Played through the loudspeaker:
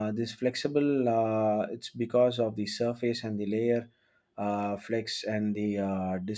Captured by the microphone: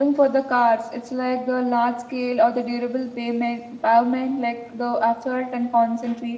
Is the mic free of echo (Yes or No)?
Yes